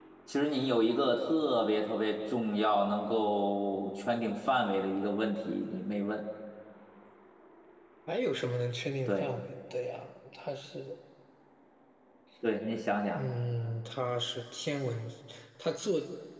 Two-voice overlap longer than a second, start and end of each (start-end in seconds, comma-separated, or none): none